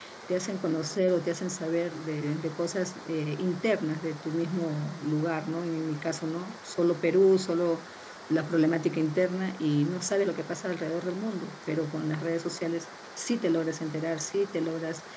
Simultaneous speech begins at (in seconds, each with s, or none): none